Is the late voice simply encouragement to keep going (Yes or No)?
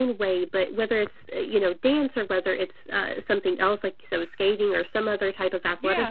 Yes